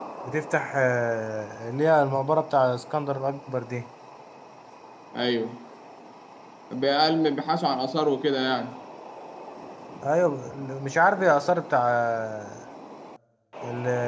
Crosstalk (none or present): none